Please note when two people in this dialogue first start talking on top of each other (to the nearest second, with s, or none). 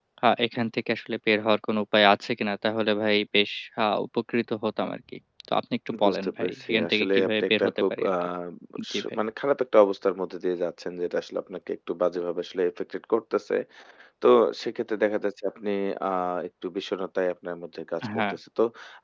6 s